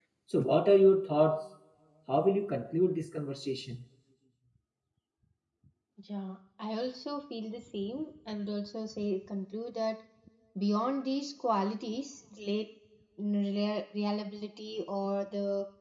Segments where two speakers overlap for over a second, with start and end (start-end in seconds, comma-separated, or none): none